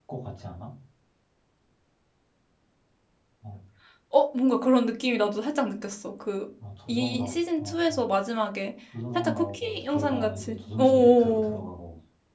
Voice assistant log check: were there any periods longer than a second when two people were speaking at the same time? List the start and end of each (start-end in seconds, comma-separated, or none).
6.9-8.1, 9.2-11.6